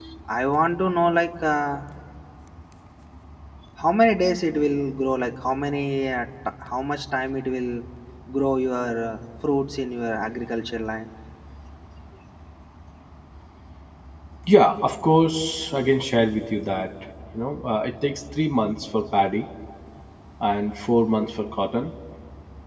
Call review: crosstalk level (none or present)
none